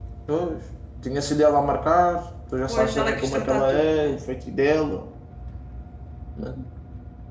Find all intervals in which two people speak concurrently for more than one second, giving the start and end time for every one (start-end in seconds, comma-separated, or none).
2.7-4.2